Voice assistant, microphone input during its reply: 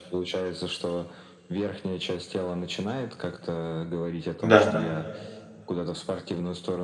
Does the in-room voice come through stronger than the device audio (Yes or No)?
Yes